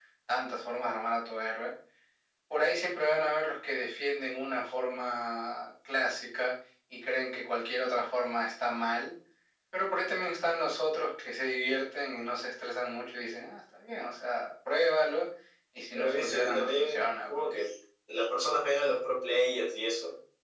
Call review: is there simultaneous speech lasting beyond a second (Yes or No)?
Yes